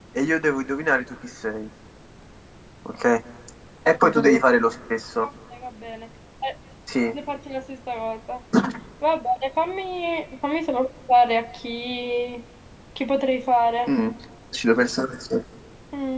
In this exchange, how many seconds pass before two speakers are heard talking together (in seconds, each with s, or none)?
none